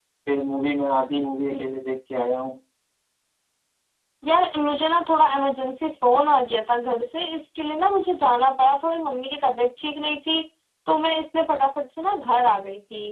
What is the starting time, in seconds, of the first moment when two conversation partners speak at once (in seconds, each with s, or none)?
none